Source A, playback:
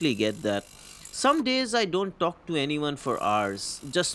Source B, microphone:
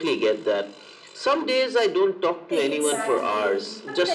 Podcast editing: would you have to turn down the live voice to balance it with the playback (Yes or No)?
No